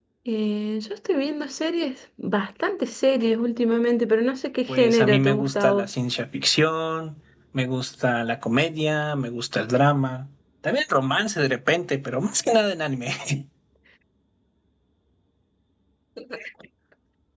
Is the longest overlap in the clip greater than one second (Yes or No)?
Yes